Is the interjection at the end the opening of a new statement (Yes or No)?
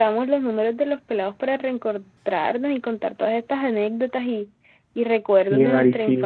Yes